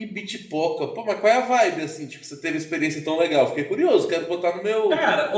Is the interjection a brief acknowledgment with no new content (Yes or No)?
No